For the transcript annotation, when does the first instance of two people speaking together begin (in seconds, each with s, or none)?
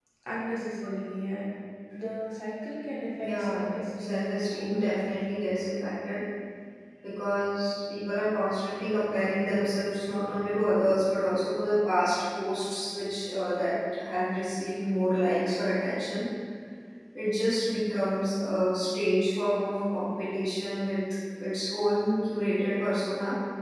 3.2 s